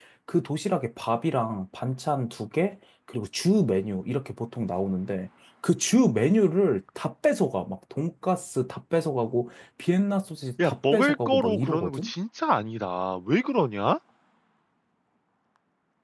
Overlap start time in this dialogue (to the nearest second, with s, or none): 11 s